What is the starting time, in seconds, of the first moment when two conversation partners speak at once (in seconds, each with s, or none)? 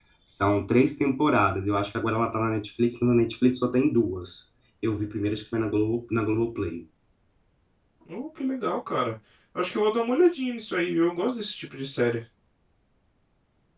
none